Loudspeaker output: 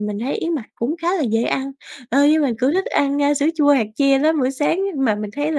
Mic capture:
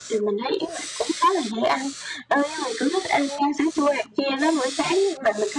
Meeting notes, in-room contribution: none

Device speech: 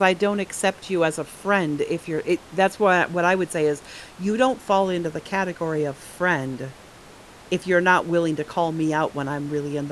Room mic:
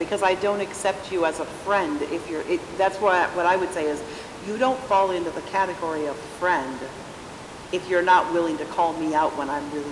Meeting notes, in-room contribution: none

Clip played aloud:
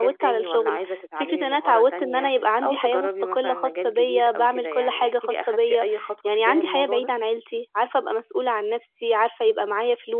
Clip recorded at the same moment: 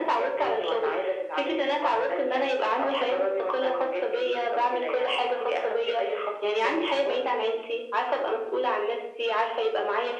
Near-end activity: none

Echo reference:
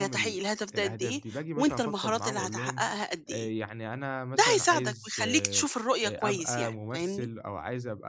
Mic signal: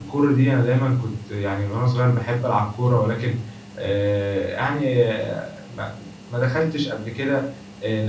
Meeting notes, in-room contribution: present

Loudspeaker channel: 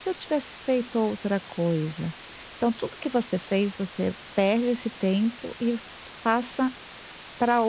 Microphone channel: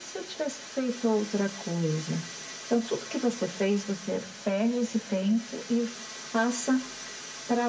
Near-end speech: none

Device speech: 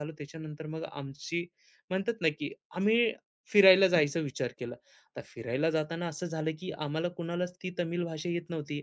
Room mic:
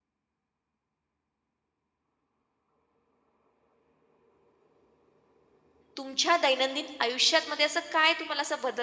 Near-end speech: present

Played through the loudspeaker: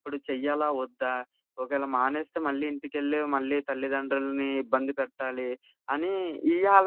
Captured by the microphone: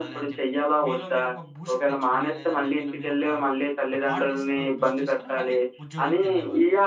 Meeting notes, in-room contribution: present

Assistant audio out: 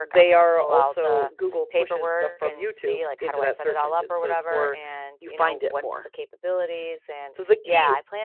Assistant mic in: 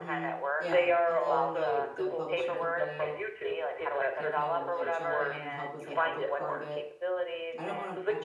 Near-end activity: present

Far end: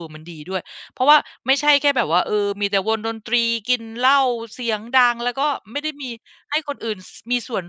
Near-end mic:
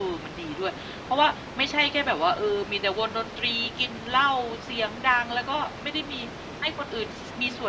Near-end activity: none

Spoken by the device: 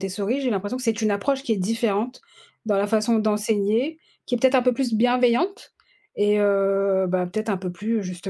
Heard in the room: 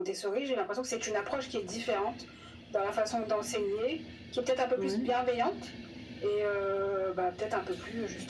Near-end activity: present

